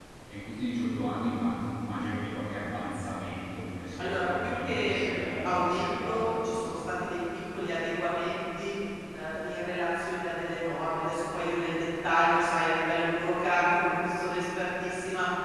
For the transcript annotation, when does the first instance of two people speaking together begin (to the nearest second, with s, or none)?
4 s